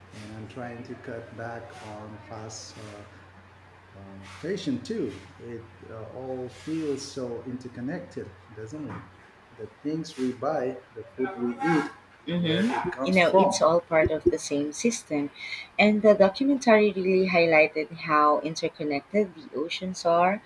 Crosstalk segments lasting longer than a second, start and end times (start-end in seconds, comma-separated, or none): 12.4-13.6